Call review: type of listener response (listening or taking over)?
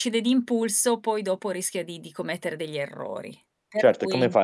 taking over